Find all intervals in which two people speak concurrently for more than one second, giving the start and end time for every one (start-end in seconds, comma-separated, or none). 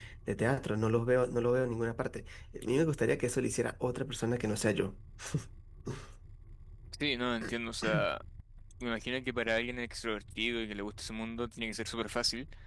none